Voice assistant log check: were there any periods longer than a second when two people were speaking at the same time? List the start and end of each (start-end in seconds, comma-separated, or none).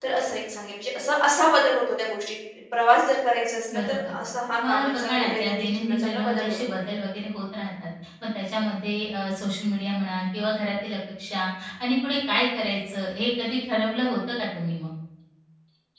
4.7-6.6